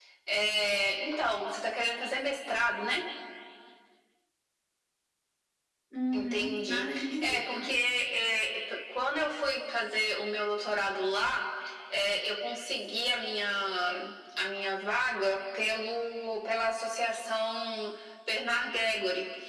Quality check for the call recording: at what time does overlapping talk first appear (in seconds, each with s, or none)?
6.1 s